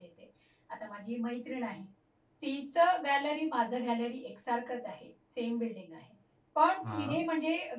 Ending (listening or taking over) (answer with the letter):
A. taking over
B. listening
B